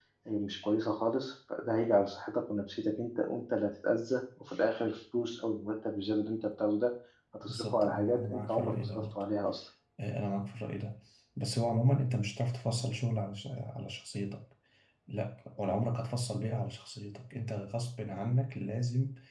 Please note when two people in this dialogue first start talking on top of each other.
7.4 s

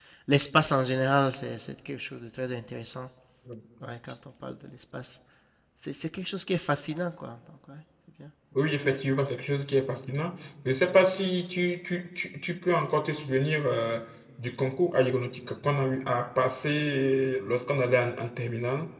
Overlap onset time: none

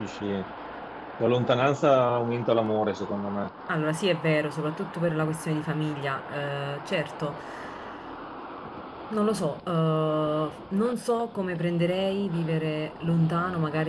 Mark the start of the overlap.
none

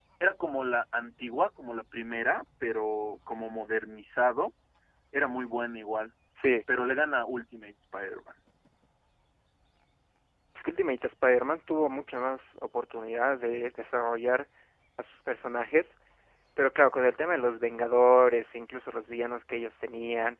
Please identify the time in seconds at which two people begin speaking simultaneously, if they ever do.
none

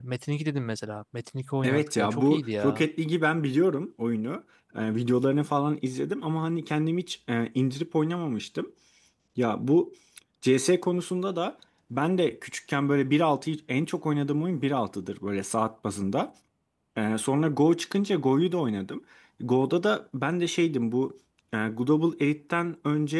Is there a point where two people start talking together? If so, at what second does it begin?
1.6 s

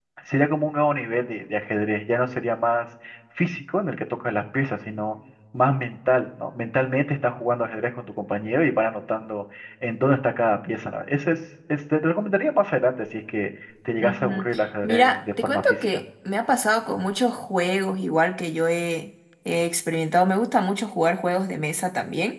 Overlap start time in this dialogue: 14.0 s

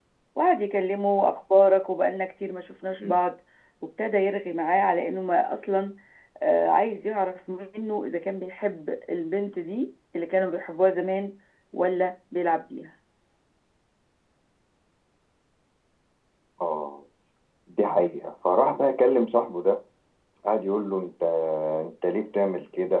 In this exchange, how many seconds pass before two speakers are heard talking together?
none

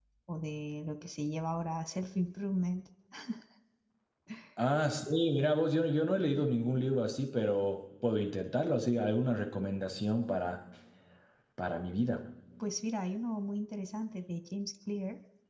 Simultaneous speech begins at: none

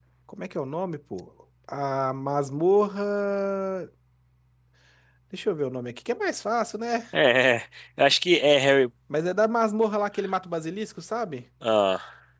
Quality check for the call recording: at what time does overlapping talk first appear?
none

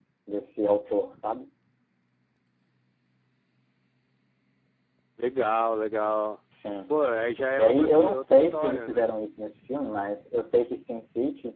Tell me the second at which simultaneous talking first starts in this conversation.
7.6 s

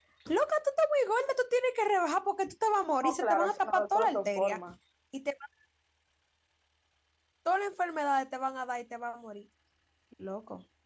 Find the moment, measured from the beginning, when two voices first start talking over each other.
3.0 s

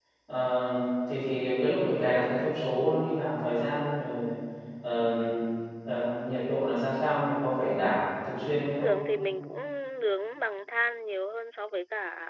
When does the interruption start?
none

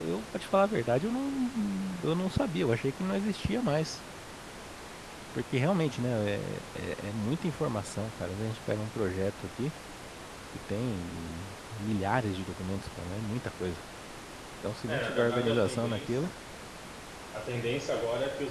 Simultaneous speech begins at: 14.9 s

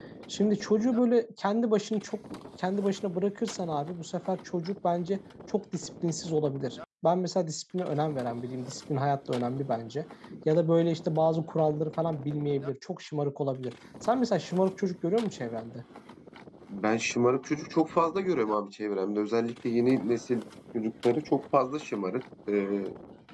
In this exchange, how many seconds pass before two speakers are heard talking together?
none

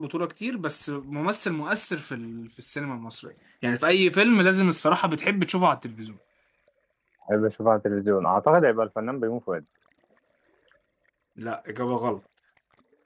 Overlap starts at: none

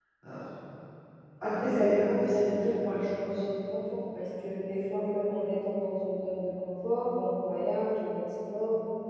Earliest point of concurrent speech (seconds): 1.4 s

